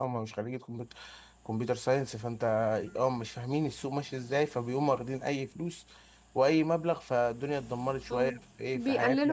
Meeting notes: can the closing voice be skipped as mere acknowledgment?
No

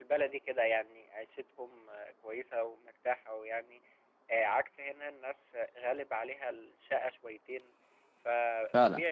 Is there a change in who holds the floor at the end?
No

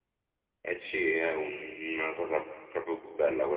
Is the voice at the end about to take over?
No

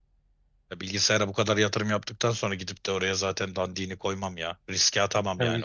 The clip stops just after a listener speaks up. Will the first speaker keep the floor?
No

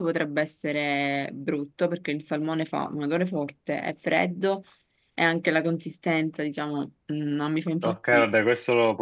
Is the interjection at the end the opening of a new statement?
Yes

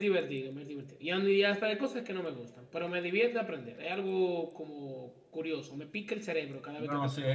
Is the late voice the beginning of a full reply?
Yes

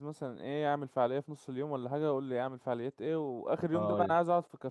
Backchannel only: Yes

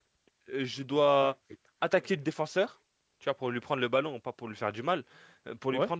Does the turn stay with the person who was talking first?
Yes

